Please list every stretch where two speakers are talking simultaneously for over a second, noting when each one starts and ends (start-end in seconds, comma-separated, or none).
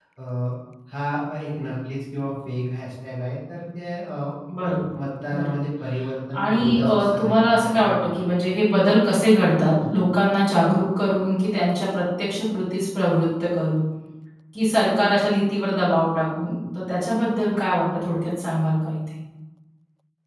6.4-8.2